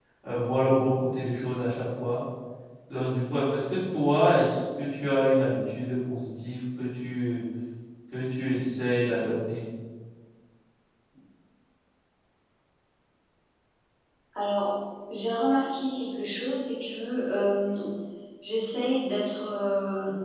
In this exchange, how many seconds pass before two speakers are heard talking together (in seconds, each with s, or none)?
none